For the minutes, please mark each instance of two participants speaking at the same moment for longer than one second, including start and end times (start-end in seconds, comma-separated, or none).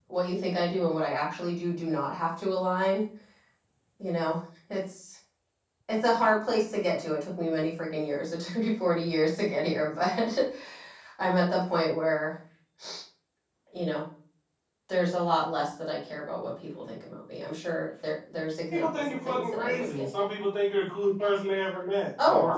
18.7-20.0